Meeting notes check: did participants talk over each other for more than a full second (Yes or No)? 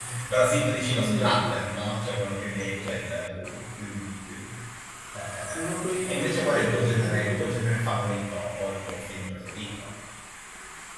Yes